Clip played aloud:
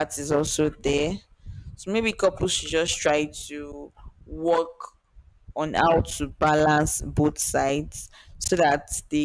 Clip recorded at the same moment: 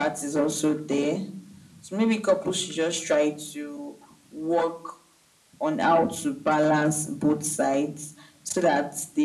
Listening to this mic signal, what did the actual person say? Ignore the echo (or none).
none